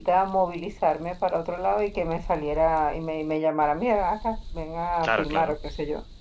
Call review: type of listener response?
listening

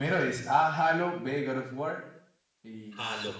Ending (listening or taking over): taking over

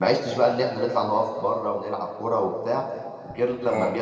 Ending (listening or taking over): listening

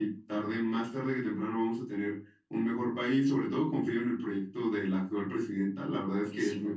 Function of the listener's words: listening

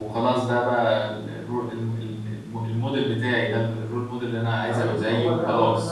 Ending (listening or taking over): taking over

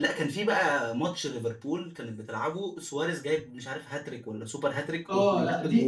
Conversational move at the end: taking over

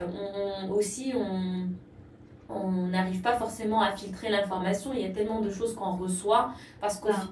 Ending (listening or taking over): listening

